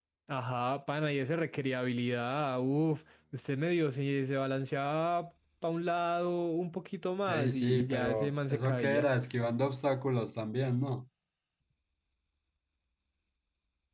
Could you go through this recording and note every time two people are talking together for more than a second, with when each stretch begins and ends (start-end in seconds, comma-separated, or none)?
7.3-9.1